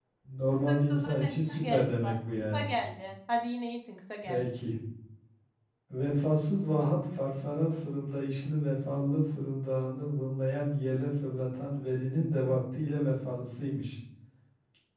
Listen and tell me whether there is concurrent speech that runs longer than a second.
Yes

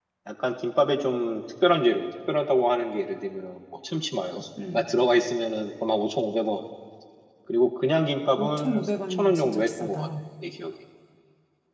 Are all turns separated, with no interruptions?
No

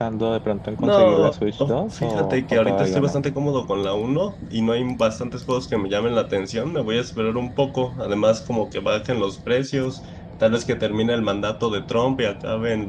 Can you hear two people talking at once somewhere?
Yes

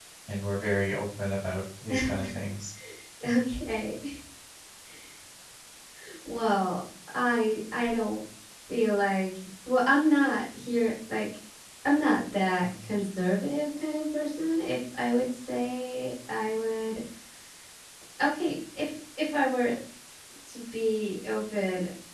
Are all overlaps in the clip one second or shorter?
Yes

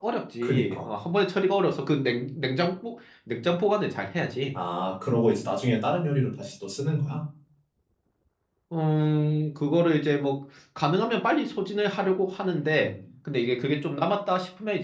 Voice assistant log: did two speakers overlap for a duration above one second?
No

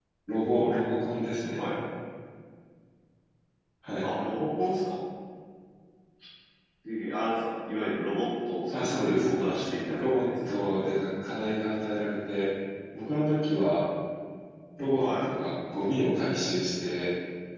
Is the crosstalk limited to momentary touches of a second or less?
No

